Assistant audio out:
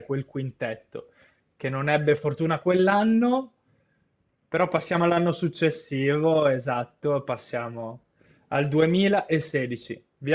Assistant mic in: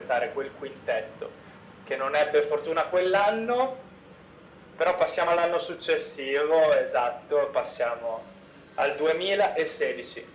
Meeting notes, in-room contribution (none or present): none